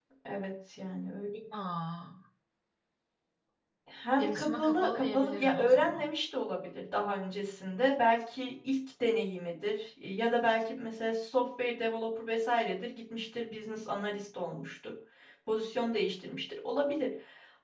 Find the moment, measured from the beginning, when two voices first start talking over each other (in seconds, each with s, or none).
4.2 s